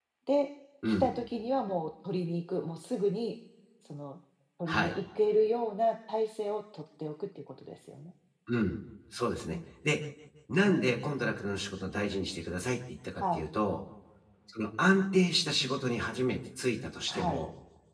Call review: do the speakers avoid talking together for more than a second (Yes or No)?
Yes